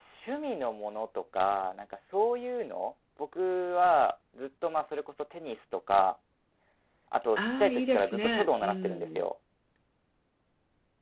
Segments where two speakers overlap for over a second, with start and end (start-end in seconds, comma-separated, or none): 7.4-9.2